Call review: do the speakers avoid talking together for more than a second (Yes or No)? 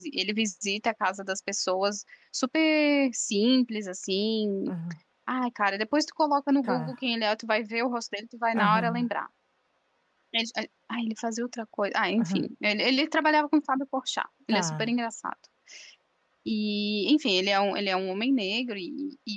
Yes